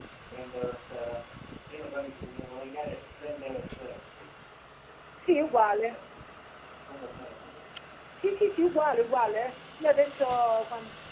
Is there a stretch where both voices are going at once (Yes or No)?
No